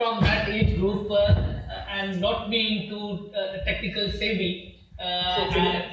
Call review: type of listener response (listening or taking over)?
listening